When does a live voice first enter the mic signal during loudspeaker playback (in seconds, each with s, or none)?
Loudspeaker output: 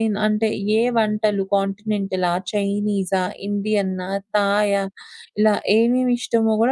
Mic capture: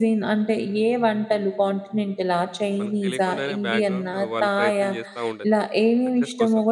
2.8 s